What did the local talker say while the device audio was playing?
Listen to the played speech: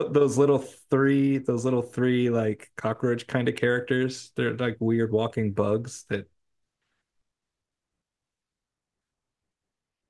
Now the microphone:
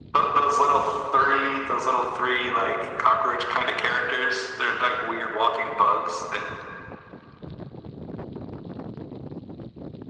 none

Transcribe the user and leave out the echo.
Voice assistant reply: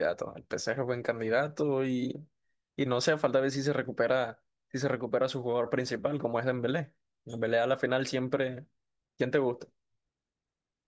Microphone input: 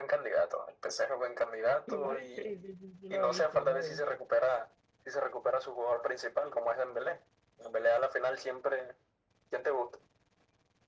igual, sí, sí, sí, sí lo he visto, sí lo he visto.

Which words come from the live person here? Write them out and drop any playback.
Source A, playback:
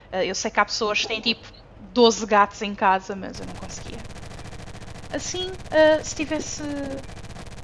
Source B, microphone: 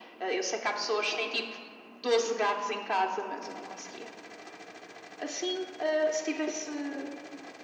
none

